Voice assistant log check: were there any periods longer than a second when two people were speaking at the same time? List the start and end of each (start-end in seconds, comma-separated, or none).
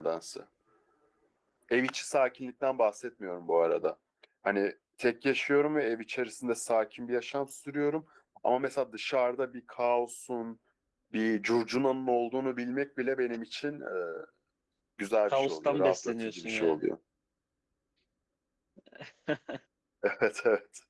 15.3-16.7